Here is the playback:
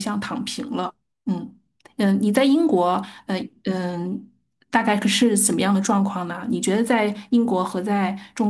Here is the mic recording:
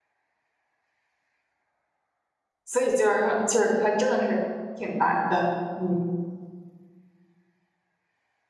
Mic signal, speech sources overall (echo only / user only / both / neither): user only